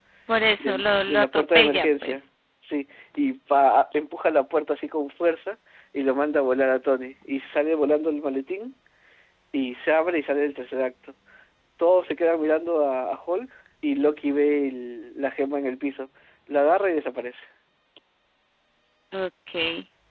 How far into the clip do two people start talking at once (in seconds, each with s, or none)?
0.6 s